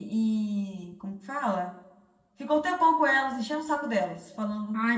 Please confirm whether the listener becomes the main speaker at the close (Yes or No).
Yes